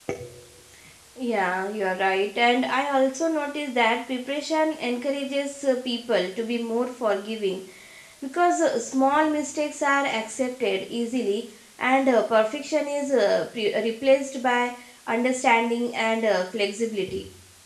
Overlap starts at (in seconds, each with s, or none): none